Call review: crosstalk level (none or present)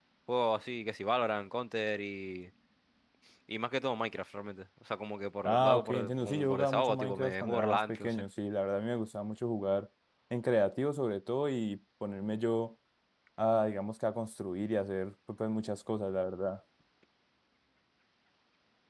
present